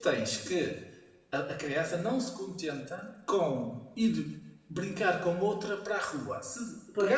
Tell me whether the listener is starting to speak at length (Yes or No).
No